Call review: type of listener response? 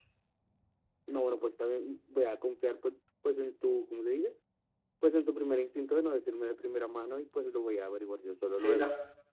taking over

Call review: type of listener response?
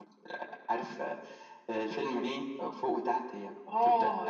taking over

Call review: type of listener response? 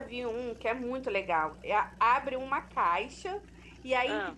listening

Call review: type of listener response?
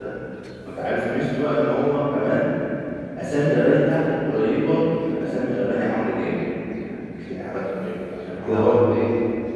listening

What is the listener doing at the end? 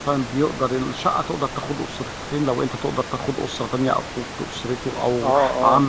taking over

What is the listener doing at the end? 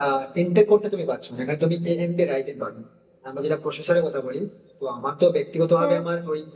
listening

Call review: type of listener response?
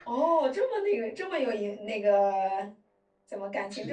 listening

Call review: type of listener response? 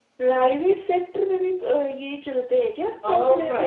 taking over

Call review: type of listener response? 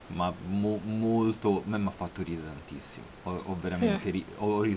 listening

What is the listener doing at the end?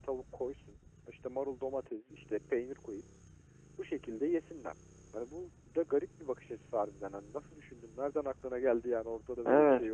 taking over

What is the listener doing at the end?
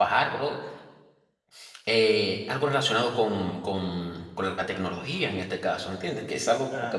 listening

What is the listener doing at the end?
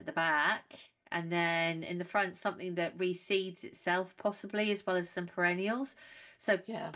listening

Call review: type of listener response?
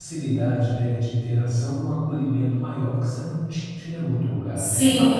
taking over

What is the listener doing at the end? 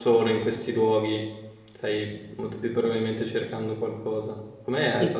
taking over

